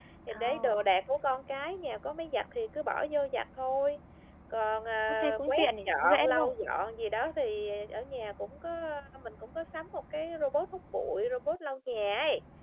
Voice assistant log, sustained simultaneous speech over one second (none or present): present